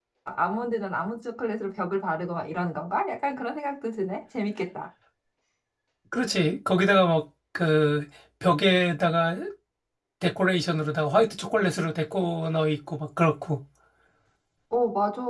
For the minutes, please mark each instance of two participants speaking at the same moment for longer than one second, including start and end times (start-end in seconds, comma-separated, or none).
none